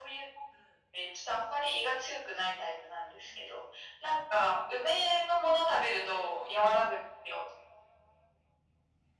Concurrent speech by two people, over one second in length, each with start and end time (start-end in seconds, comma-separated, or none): 5.8-7.0